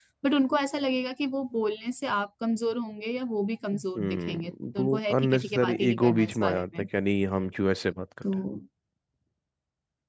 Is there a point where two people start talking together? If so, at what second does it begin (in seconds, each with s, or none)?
3.7 s